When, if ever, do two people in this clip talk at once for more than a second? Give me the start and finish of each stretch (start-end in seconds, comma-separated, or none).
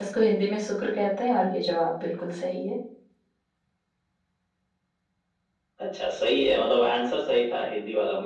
none